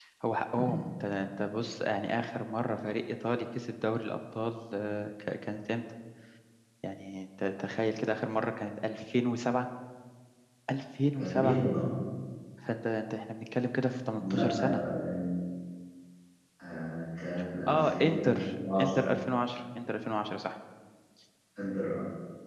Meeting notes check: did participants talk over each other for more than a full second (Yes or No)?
Yes